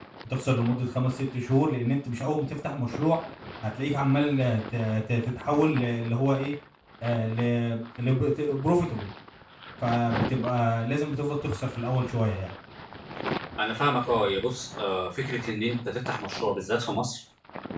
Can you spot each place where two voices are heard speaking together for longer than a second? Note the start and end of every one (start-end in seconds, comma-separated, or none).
none